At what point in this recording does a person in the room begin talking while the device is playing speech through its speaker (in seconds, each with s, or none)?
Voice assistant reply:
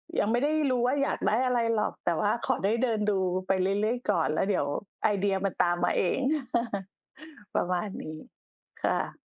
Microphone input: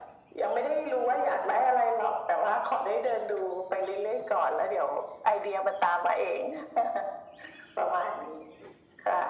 none